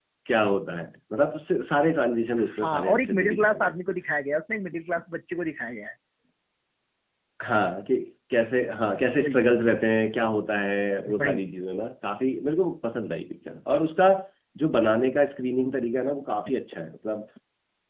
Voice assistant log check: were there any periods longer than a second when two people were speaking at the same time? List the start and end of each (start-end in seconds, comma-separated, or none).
2.4-3.7